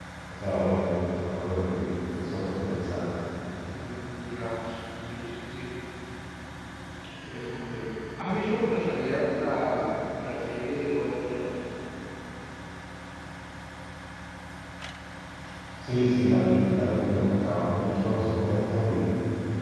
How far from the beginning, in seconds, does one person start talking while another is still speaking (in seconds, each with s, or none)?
none